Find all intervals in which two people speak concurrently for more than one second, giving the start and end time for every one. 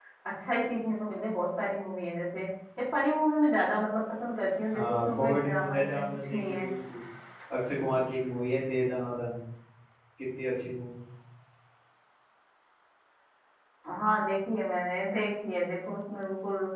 4.7-6.7

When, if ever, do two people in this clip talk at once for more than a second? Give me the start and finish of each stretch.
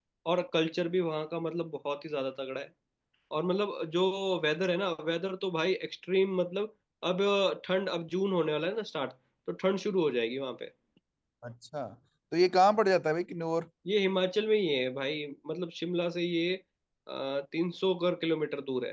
none

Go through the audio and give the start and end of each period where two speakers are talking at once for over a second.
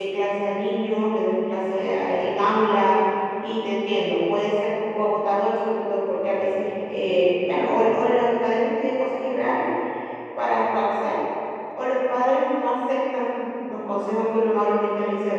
none

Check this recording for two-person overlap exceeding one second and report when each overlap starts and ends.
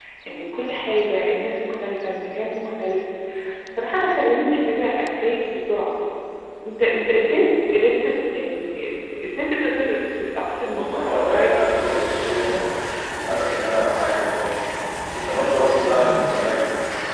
10.7-12.0

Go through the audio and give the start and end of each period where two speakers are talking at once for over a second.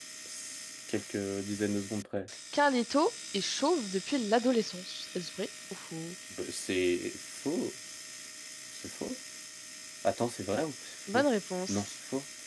none

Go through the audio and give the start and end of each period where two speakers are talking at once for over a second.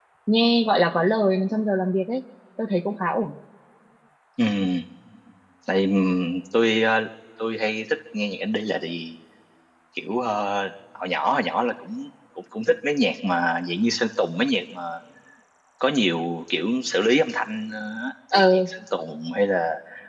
none

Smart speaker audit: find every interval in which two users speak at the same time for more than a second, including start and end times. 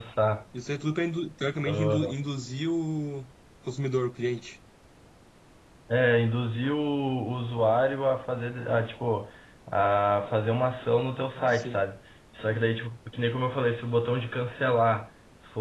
none

